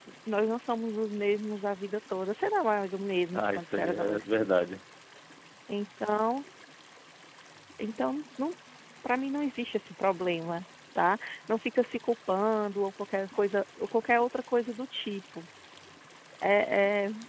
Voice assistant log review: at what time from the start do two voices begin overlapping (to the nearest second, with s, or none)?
3 s